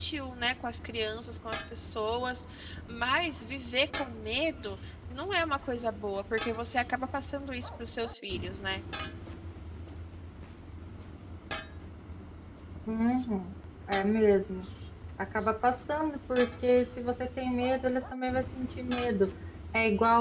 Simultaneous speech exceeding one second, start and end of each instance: none

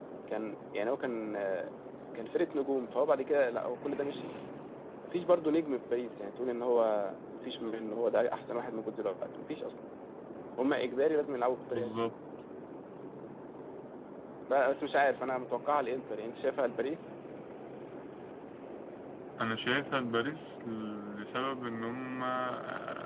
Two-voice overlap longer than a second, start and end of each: none

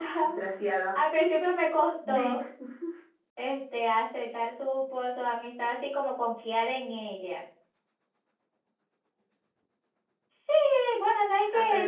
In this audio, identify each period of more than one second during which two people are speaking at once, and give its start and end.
none

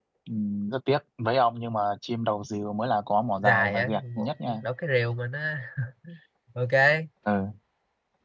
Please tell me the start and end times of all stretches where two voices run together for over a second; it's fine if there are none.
3.4-4.6

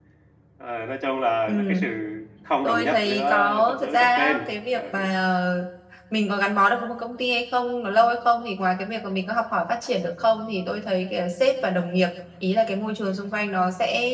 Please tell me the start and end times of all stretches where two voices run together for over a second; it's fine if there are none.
2.6-4.8

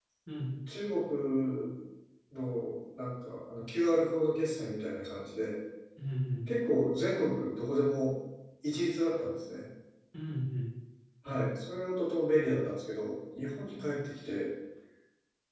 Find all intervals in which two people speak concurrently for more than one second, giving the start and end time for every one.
none

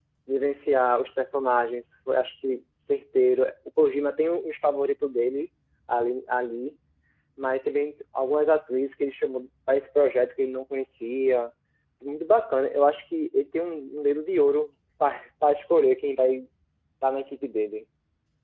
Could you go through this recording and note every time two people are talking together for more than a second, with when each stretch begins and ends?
none

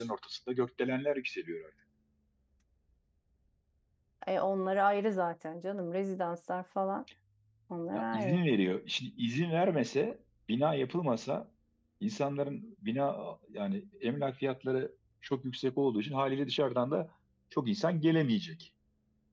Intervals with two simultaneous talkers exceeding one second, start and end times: none

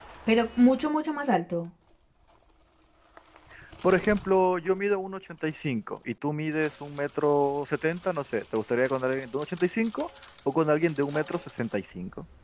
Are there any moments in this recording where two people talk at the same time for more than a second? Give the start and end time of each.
none

